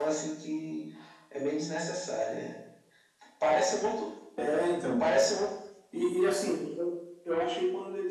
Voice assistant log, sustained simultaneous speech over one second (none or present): none